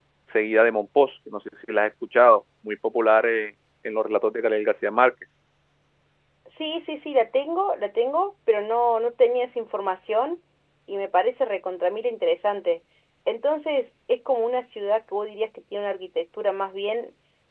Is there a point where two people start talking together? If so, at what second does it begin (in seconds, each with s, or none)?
none